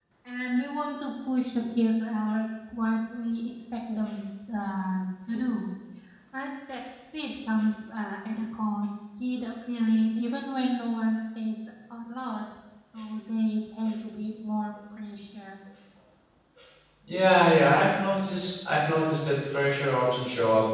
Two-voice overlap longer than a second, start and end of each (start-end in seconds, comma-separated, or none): none